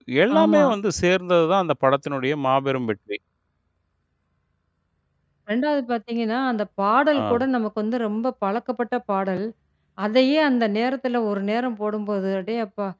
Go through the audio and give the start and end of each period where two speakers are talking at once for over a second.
none

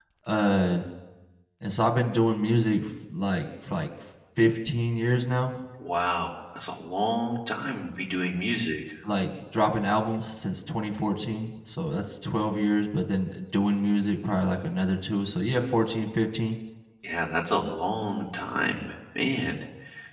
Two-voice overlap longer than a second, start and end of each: none

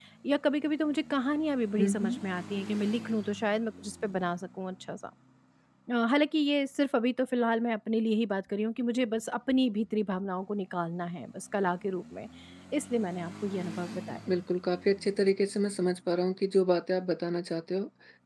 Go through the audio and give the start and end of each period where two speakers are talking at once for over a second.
none

